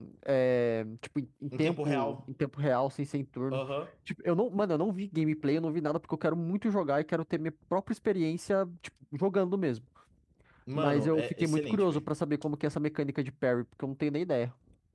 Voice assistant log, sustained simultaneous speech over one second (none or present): present